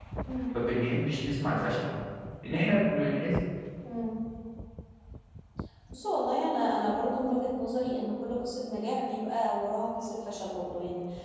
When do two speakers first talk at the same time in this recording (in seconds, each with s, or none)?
none